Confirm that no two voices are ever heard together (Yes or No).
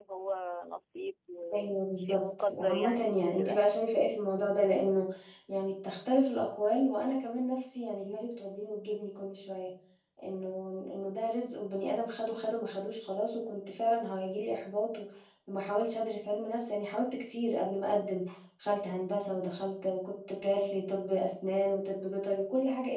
No